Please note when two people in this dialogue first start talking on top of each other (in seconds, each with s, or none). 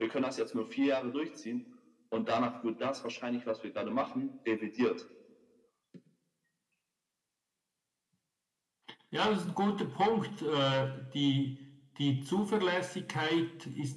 none